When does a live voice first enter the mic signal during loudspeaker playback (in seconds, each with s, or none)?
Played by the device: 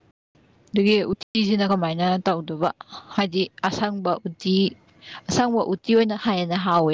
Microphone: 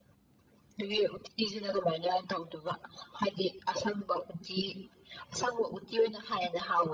none